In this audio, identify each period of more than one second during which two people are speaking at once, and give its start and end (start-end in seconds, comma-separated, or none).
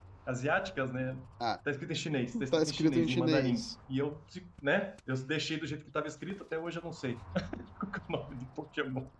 2.5-3.8